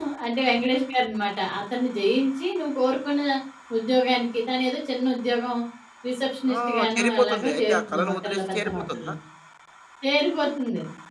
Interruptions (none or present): present